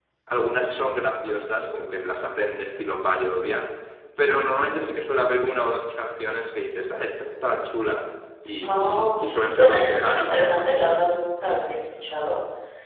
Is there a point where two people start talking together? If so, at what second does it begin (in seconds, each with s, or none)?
8.6 s